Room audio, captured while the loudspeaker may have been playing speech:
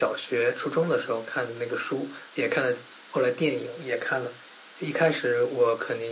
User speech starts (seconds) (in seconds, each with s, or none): none